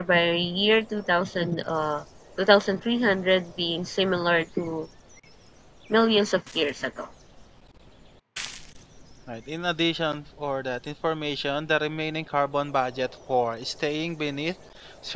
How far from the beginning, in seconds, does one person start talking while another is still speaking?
none

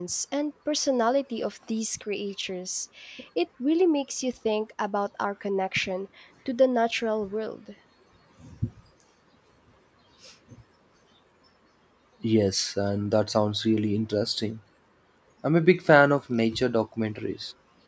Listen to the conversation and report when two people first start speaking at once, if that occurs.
none

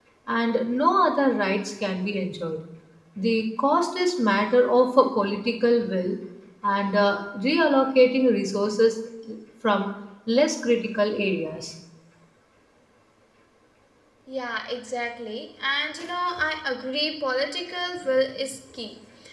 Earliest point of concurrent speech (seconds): none

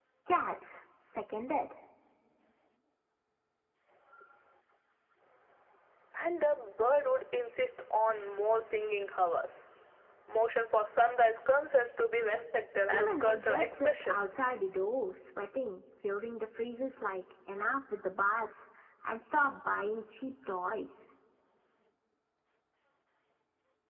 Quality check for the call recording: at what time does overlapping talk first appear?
12.9 s

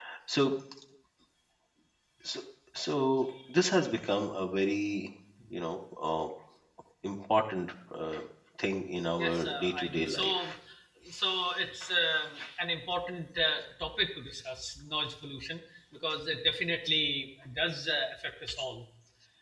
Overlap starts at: 9.2 s

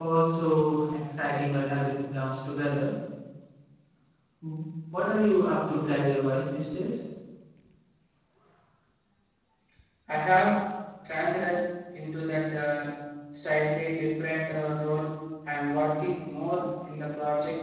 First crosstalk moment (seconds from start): none

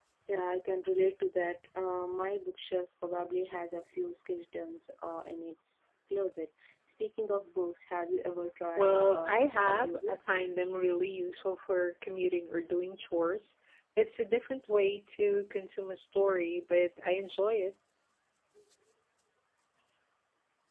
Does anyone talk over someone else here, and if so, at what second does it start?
8.8 s

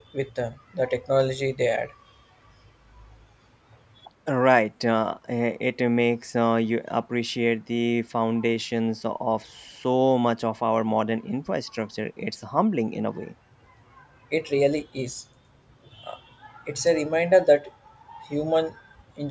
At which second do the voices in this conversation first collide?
none

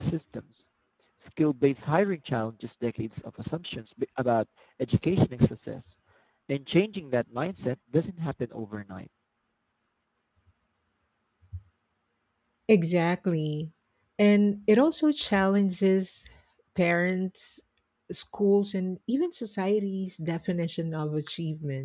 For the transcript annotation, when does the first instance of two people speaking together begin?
none

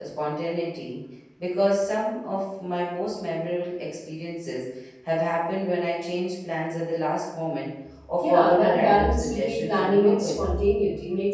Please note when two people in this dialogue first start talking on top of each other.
8.2 s

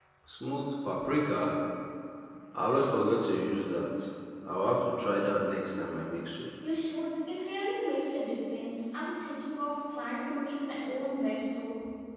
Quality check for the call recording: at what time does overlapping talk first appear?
none

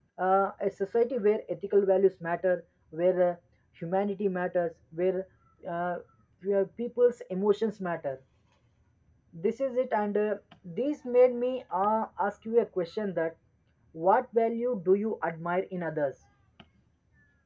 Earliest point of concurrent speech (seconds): none

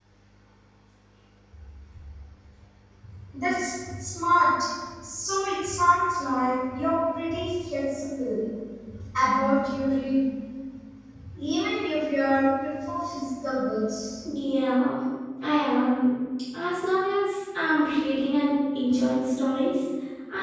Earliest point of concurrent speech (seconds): none

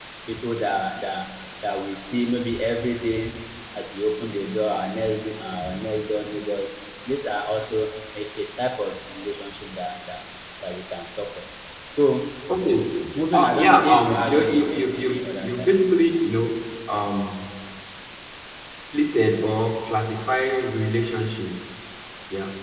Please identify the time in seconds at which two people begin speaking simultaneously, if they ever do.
13.3 s

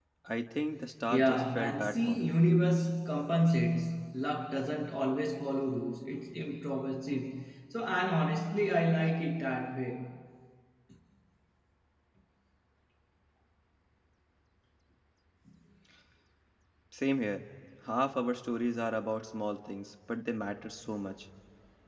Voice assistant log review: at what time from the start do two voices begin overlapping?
1.1 s

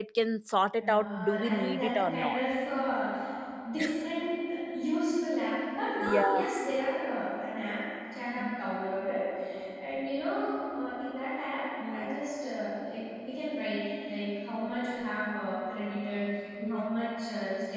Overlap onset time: 0.8 s

